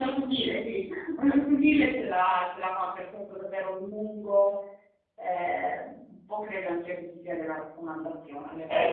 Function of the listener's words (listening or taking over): taking over